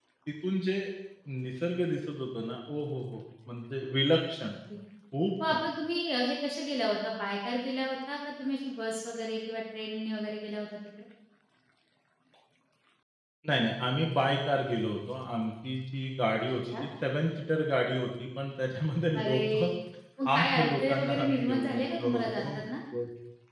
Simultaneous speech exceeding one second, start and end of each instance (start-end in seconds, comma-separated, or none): 20.4-22.6